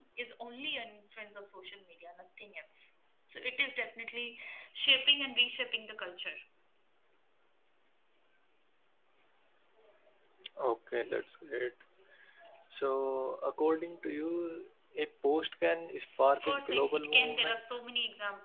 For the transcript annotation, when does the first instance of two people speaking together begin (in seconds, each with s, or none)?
16.3 s